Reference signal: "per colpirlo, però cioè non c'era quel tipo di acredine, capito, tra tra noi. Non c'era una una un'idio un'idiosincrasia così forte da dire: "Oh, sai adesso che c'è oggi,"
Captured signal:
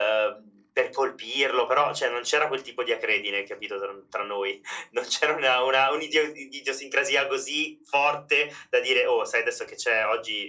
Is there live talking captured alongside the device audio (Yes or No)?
No